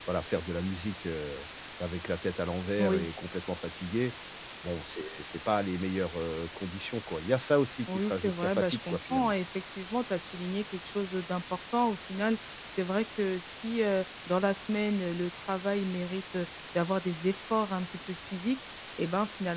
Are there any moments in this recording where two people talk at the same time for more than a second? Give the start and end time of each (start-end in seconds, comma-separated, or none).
7.9-9.3